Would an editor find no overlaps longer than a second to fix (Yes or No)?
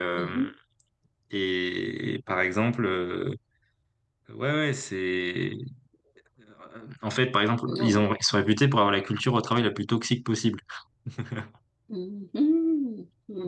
Yes